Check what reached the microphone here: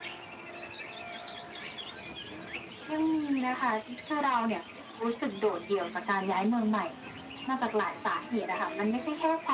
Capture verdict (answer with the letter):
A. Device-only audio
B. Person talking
A